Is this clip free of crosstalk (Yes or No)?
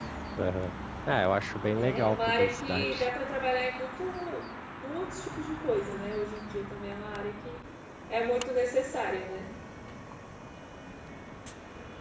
No